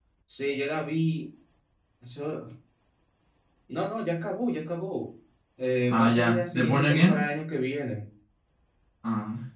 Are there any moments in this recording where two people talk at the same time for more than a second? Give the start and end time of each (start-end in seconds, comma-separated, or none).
5.9-7.1